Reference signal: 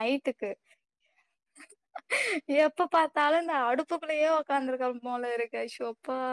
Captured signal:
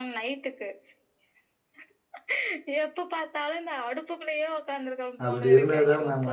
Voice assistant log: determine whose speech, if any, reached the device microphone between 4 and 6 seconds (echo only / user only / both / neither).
both